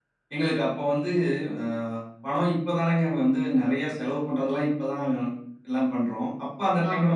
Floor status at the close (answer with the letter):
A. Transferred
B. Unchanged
B